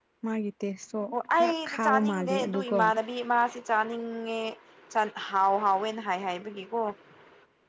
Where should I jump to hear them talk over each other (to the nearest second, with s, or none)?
1 s